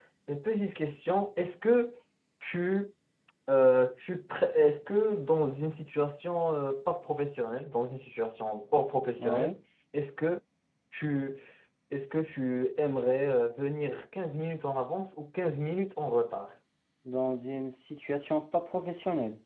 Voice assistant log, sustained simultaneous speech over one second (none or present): none